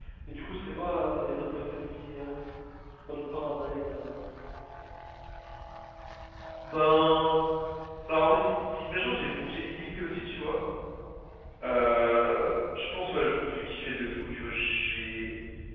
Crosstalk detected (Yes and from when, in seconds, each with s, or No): No